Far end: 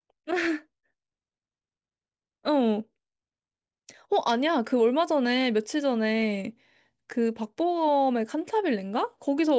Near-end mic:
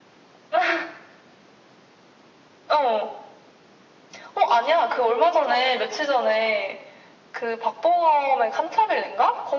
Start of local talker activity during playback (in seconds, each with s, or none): none